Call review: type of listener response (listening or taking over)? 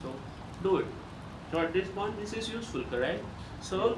listening